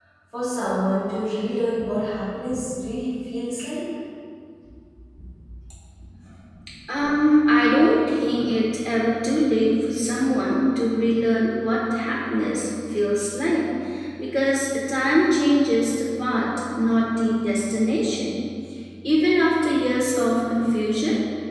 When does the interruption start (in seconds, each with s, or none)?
none